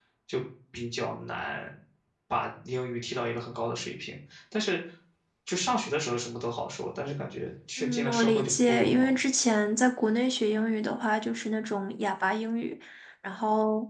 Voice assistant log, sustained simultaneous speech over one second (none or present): present